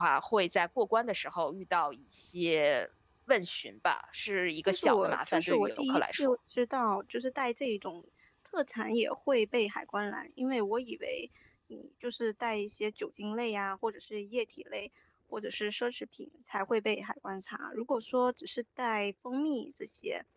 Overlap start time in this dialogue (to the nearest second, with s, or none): 5 s